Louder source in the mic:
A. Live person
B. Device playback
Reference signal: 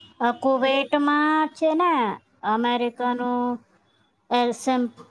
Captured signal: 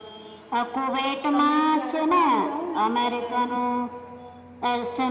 B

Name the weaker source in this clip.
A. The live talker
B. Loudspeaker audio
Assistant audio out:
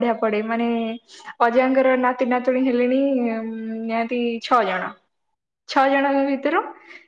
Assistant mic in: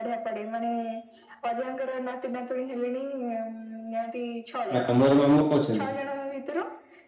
B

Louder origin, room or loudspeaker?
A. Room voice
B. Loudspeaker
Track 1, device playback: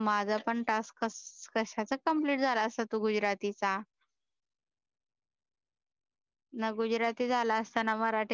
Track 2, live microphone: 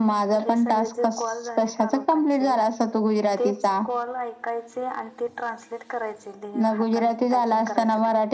B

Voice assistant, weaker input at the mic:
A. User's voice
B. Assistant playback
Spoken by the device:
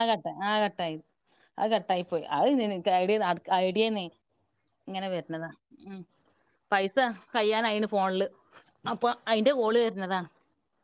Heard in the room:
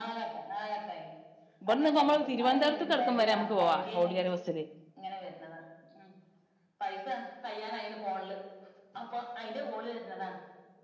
B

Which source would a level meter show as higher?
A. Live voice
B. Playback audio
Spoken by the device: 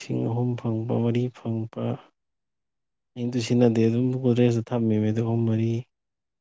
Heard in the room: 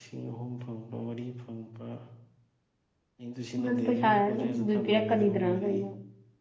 A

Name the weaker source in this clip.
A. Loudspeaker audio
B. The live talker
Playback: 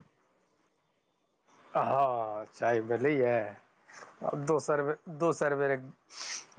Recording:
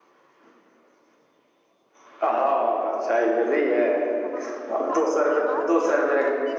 B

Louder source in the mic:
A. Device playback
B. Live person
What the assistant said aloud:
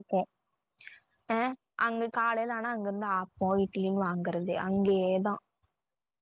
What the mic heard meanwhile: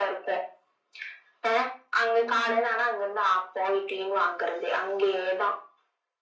A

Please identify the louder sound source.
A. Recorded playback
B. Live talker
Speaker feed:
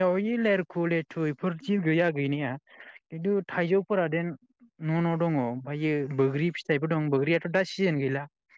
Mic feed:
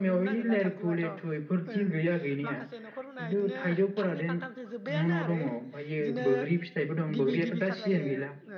A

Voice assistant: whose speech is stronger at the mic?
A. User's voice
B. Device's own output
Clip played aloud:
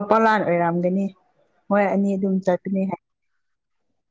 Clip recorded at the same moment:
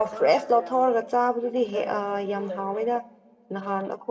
A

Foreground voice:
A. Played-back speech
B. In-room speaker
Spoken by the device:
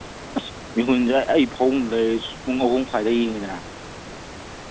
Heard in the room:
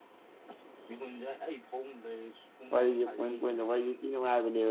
B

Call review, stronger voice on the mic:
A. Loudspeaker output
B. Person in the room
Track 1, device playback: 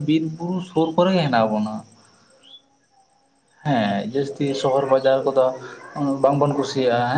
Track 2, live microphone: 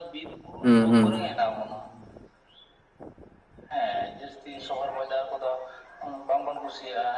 B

